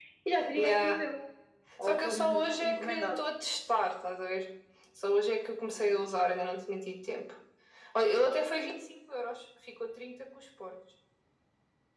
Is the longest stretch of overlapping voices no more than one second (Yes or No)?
No